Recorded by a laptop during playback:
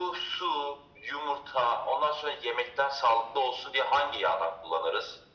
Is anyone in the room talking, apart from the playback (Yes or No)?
No